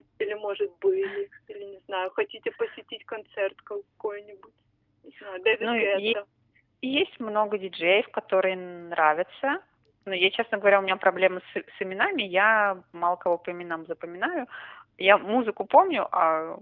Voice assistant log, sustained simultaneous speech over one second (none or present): none